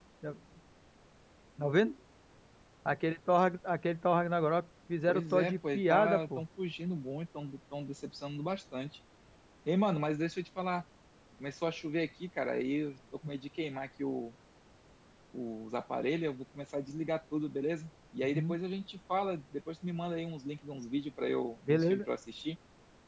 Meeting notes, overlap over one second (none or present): present